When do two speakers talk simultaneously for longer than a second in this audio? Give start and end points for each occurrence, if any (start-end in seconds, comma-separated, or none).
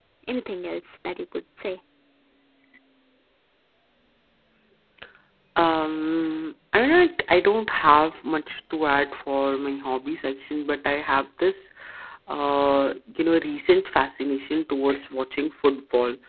none